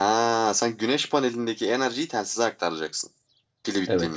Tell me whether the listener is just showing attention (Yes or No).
No